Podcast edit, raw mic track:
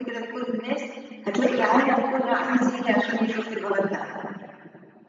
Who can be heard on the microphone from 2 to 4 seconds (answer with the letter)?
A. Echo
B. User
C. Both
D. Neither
A